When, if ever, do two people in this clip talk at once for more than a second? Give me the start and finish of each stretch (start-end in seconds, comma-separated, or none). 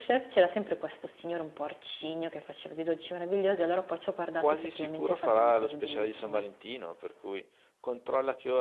4.4-6.5